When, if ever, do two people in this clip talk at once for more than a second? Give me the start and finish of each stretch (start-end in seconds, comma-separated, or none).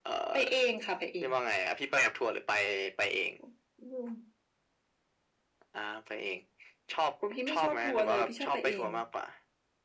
7.5-8.9